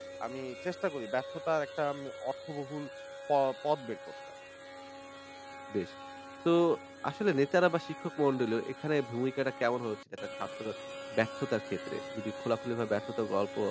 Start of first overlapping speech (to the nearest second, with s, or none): none